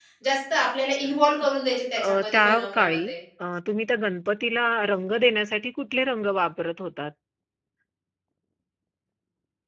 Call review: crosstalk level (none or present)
present